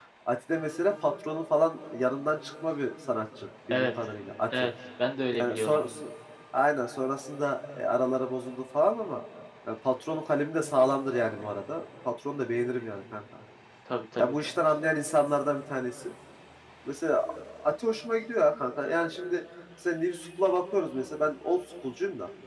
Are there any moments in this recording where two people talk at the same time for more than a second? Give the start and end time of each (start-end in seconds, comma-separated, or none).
none